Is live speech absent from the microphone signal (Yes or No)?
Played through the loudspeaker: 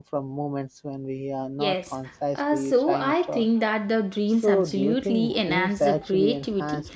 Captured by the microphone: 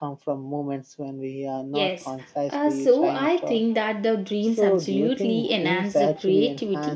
Yes